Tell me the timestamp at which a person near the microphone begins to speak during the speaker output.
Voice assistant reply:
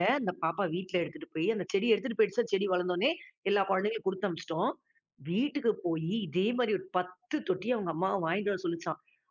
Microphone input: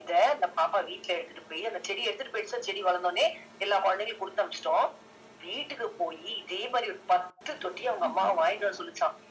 8.0 s

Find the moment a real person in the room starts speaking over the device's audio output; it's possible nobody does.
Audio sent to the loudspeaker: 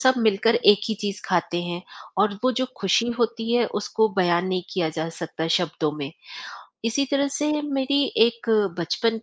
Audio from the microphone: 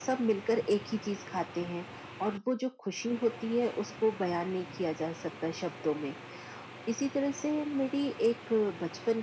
none

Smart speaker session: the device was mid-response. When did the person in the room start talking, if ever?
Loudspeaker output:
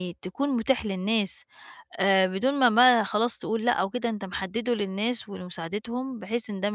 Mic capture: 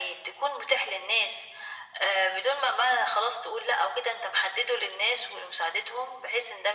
none

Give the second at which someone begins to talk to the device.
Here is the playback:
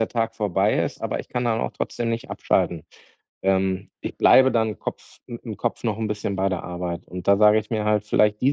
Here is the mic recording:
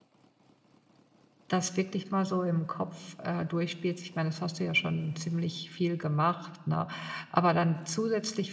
1.5 s

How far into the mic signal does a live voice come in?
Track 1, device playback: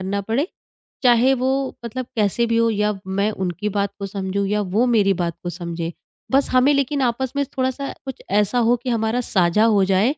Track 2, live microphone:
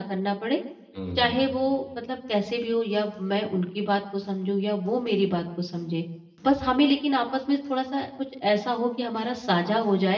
1.0 s

